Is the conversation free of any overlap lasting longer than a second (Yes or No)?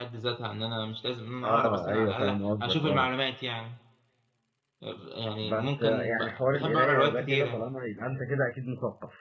No